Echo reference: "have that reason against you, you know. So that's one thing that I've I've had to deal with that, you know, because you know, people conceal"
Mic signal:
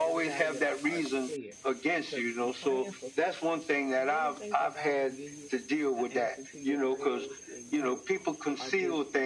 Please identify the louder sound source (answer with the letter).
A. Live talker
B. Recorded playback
B